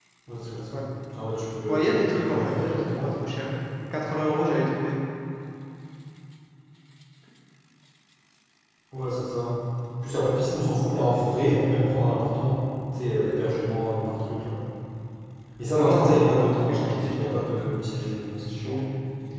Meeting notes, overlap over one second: present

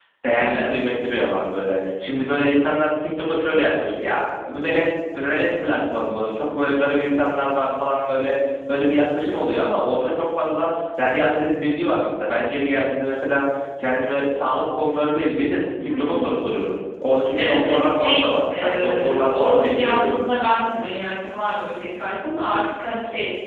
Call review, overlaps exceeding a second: present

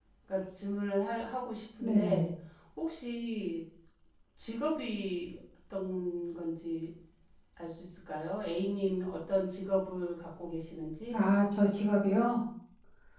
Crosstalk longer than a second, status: none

